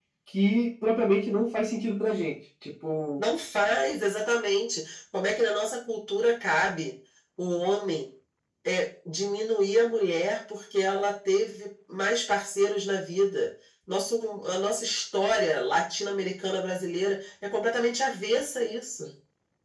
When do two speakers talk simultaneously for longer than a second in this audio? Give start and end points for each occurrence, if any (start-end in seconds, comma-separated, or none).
none